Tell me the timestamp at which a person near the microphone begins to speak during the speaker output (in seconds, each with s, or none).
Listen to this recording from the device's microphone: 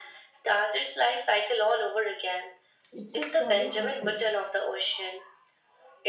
2.9 s